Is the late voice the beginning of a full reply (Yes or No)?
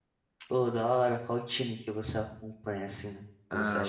Yes